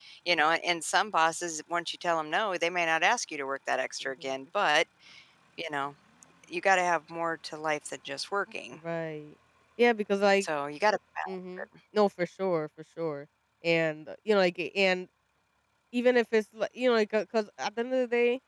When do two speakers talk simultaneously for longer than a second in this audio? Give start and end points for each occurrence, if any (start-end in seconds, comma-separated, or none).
none